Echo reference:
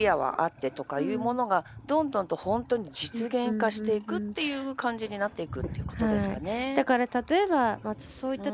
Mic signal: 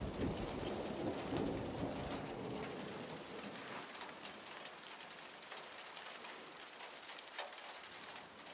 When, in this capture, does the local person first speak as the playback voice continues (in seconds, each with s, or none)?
none